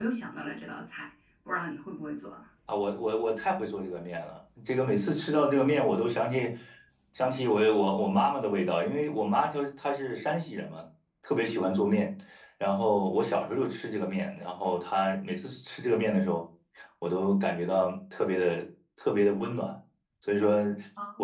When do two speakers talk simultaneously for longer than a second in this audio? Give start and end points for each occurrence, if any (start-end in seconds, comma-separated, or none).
none